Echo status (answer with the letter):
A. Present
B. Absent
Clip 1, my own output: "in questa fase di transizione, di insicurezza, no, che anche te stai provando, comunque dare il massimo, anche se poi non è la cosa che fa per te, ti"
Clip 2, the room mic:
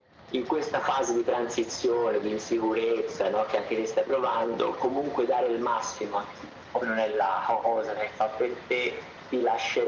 A